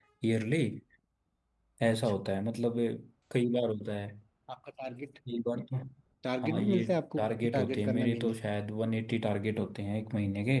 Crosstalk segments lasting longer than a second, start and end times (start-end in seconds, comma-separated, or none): 6.4-8.3